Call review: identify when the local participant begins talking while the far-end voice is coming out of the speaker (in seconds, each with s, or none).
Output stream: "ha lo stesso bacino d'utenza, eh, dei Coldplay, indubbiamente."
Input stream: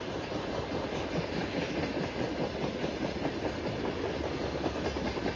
none